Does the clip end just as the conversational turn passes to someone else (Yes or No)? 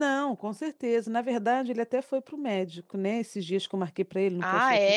No